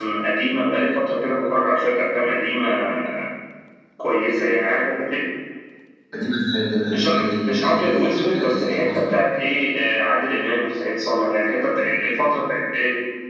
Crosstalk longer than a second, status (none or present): present